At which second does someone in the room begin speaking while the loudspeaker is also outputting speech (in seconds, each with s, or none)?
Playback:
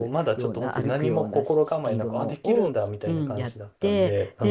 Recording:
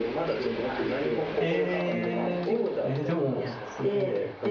1.4 s